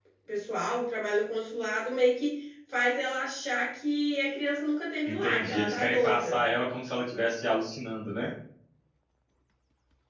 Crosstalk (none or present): present